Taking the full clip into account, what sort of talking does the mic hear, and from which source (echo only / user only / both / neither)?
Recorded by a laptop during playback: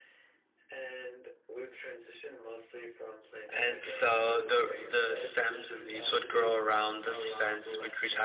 both